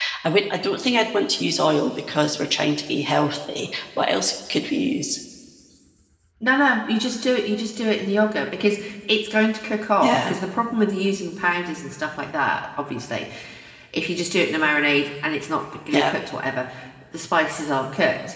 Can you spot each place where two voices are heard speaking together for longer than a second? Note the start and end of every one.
none

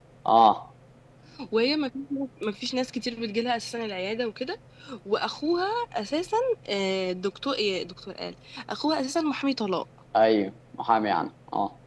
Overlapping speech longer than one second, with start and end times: none

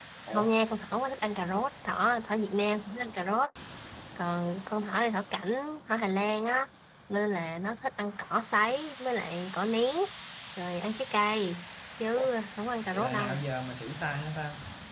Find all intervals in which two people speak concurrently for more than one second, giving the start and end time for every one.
none

